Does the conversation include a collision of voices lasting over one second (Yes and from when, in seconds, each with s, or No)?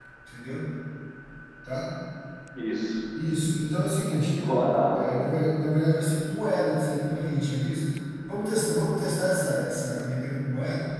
No